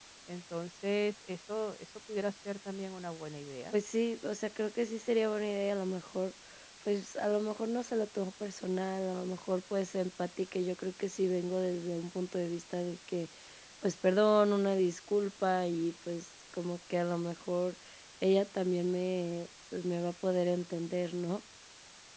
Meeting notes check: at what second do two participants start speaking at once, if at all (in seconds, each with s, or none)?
none